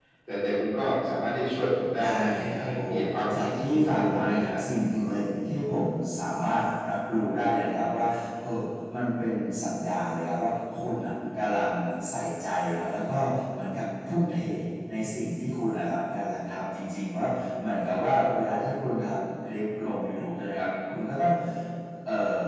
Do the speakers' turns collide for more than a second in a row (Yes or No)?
Yes